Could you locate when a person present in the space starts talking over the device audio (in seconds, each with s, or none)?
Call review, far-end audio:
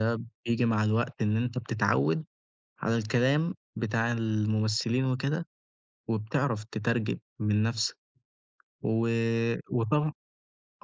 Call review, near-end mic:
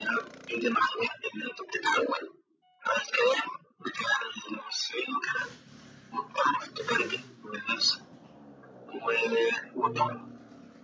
9.8 s